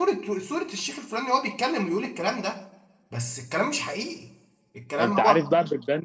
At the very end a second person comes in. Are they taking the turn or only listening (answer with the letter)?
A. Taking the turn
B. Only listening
A